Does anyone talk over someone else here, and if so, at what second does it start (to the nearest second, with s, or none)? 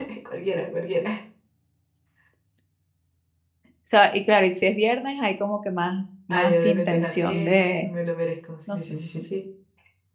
6 s